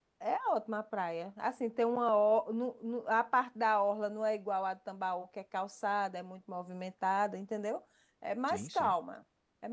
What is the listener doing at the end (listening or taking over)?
listening